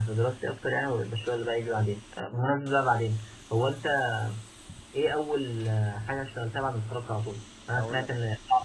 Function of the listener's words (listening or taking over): listening